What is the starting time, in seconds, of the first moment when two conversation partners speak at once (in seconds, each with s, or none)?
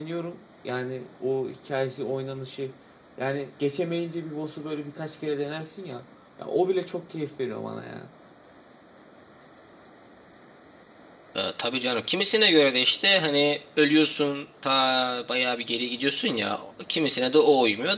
none